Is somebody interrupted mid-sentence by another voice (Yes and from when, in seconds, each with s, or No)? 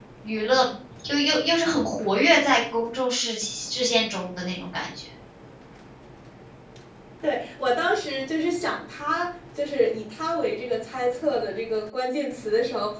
No